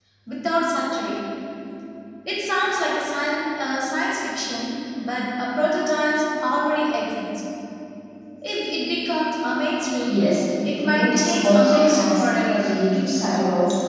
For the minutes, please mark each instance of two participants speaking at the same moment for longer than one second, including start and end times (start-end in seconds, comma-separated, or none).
10.7-12.7